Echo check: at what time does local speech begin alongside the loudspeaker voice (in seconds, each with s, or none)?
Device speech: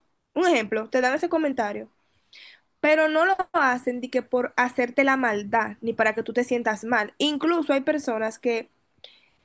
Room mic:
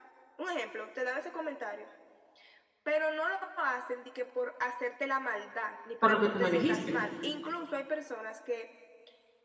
6.0 s